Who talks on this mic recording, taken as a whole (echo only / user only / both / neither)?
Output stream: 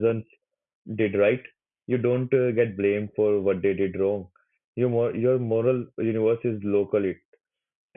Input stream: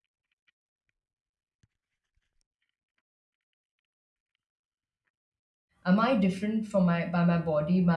user only